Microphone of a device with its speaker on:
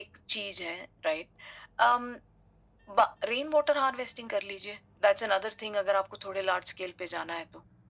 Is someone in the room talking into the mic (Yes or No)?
No